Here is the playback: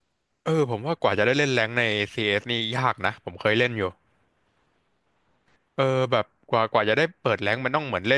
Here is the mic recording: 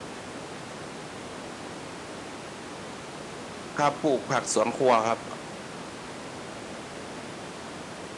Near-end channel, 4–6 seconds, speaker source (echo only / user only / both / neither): user only